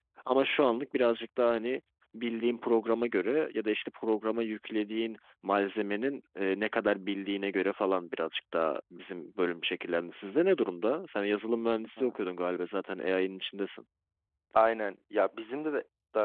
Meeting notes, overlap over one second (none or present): none